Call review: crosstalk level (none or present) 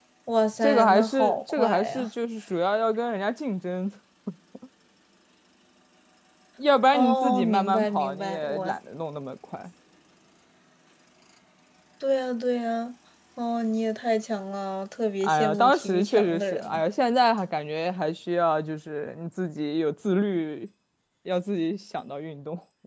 present